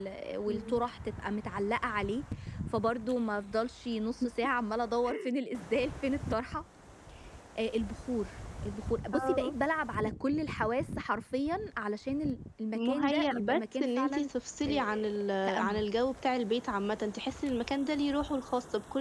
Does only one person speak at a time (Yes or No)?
No